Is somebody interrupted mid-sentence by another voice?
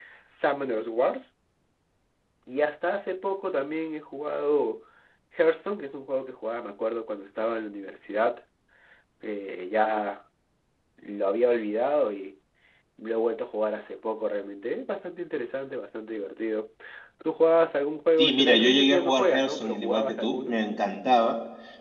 Yes, from 18.2 s

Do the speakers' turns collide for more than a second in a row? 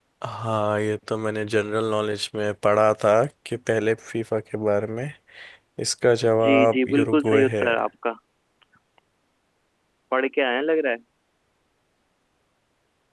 Yes, from 6.4 s

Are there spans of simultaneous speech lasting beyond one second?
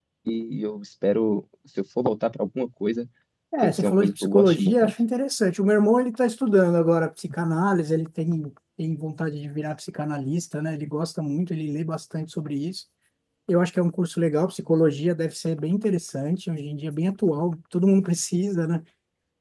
Yes, from 3.6 s

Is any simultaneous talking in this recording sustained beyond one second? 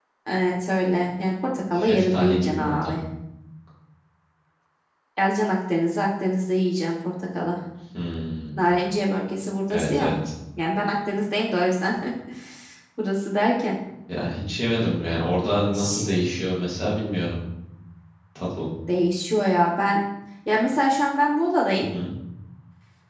Yes, from 1.7 s

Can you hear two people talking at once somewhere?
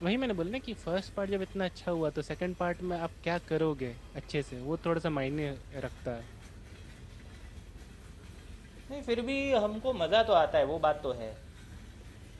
No

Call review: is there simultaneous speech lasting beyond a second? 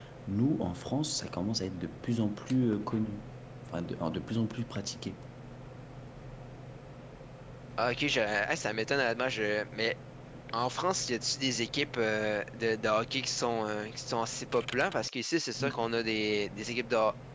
No

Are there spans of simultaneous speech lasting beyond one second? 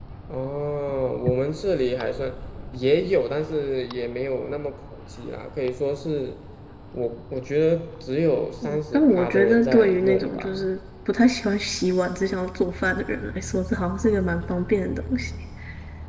Yes, from 8.6 s

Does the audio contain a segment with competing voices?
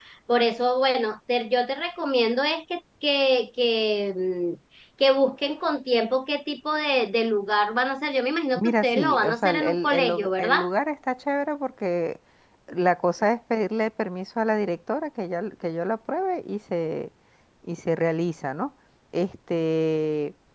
Yes, from 8.6 s

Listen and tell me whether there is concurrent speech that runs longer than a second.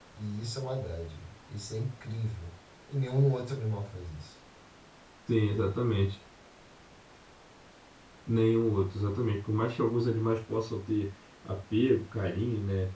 No

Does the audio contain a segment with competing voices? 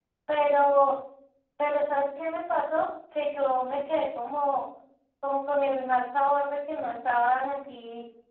No

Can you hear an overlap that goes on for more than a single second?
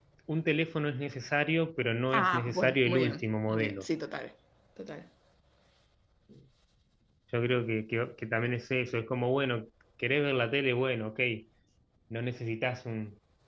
Yes, from 2.1 s

